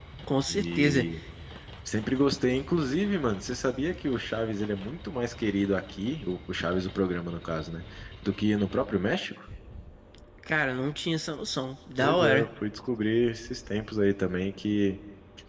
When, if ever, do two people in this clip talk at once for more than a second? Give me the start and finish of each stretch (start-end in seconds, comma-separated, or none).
none